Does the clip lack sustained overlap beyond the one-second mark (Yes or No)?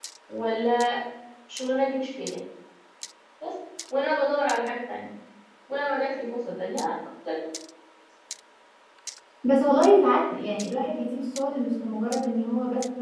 Yes